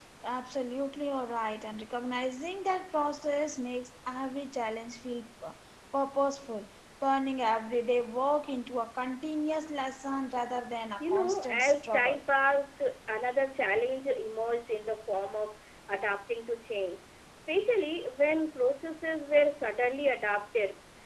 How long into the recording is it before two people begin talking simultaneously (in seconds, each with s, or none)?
11.0 s